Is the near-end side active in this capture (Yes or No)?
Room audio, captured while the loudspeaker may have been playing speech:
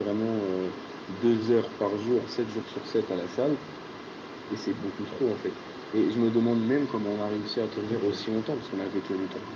Yes